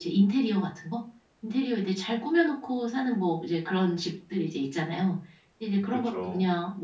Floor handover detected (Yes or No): No